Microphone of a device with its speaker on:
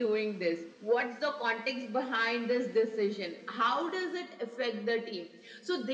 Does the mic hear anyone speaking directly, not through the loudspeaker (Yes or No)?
No